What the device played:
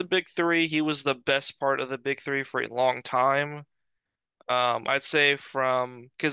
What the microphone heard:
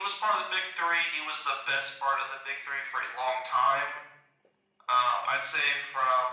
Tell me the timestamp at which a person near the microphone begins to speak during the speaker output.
none

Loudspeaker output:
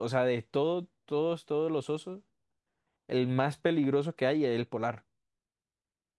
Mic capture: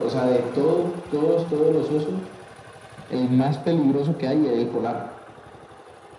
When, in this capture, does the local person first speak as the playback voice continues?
none

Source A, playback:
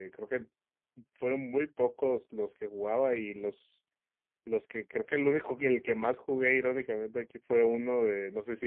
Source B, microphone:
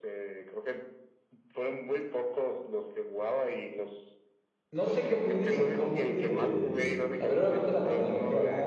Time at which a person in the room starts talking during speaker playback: 4.7 s

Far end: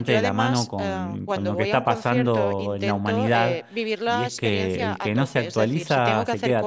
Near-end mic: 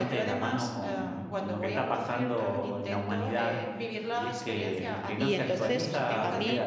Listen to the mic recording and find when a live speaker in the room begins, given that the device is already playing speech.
5.2 s

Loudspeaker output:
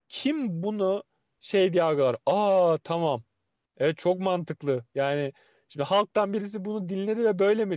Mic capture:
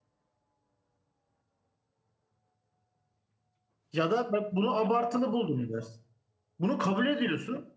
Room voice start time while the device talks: 3.9 s

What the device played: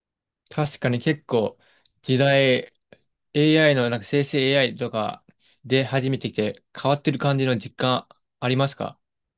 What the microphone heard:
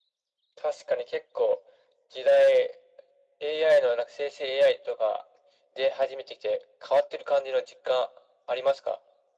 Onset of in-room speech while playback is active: none

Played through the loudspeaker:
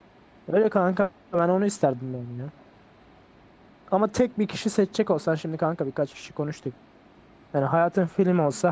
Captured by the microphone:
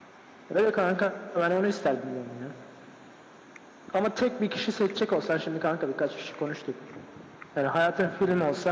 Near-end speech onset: none

